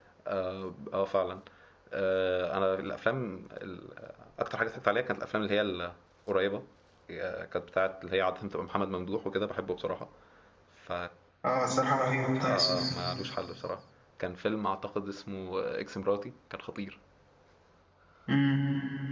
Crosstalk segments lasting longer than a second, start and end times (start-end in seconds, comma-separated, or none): none